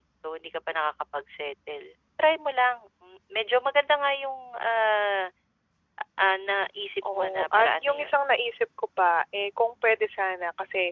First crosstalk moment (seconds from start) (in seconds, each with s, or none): 7.0 s